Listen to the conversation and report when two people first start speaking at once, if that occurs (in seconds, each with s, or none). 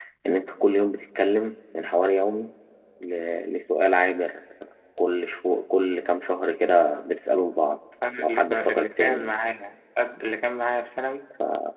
8.0 s